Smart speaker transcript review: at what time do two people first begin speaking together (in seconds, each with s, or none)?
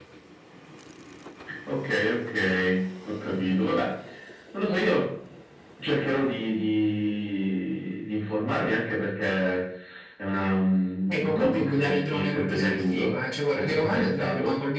11.1 s